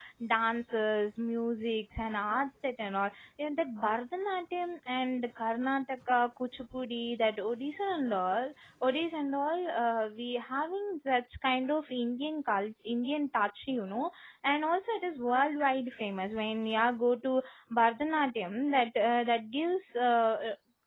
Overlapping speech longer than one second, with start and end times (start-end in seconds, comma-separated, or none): none